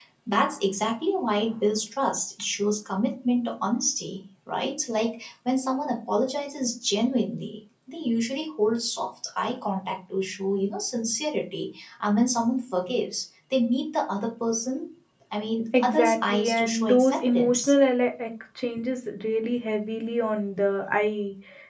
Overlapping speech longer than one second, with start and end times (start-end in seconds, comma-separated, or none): 15.8-17.6